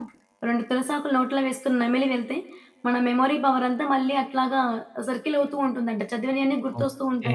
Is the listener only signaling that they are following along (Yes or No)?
No